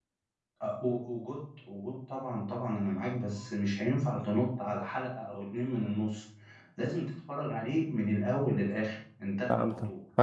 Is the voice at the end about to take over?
Yes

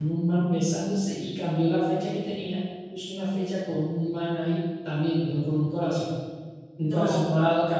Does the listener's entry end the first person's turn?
No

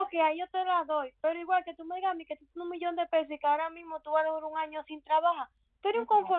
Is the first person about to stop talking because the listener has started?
No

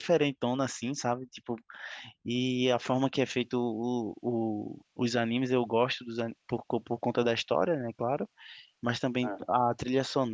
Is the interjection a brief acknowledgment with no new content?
Yes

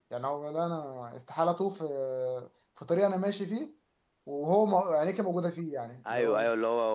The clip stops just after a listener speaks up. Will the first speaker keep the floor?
No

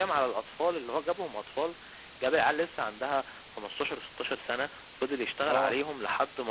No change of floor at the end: Yes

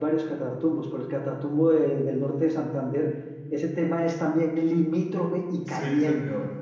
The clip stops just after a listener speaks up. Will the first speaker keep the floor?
No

